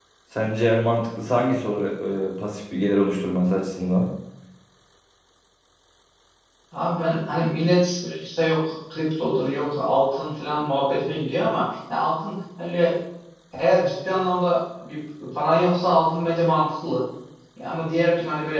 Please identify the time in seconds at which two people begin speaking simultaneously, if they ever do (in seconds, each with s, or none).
none